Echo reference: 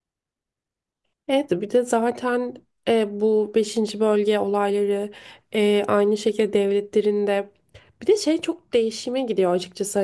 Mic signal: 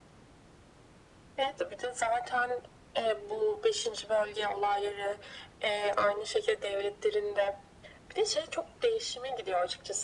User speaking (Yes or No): No